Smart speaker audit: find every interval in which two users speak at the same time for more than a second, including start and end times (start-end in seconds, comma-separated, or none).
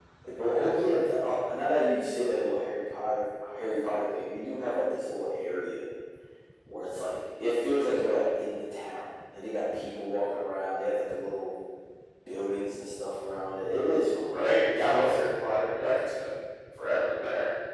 14.3-15.7